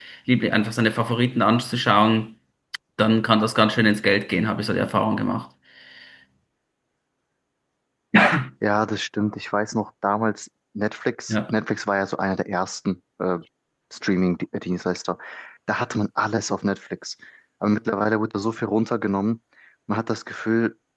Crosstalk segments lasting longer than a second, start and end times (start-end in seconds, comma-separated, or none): none